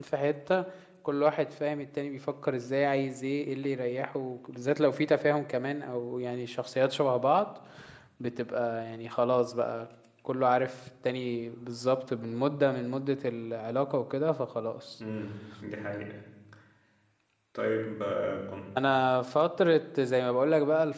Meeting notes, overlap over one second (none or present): none